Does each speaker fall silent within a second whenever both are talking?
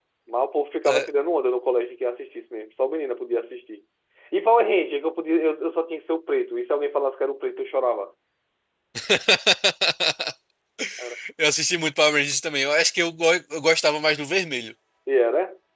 Yes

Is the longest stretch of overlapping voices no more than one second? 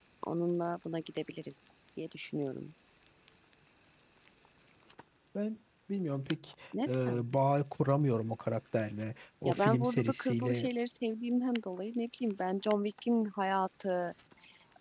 No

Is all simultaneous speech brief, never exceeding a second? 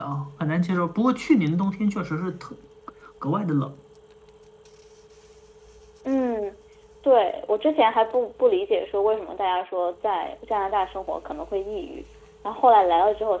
Yes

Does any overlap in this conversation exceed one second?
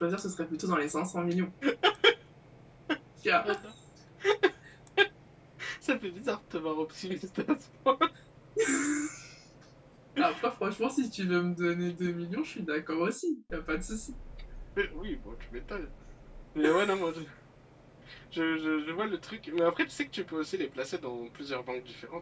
No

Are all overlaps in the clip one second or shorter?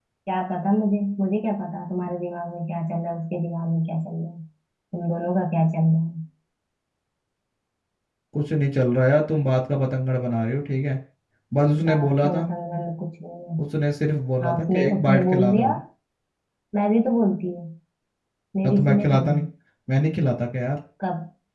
No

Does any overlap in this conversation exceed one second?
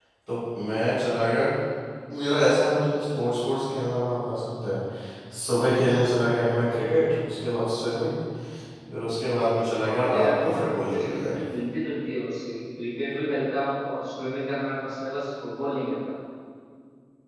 Yes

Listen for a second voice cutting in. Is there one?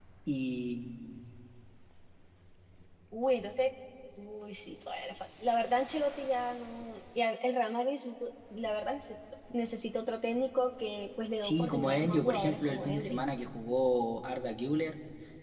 Yes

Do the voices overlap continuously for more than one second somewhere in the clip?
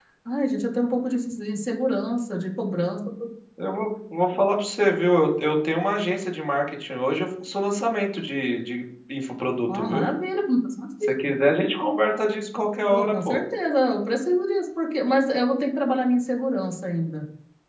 No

